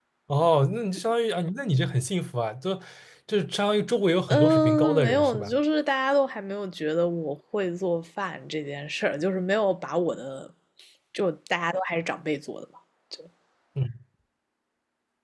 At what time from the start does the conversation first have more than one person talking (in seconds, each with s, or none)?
4.3 s